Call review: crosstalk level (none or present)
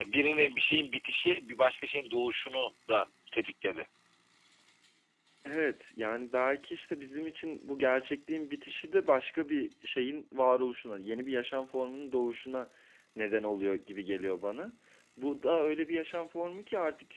none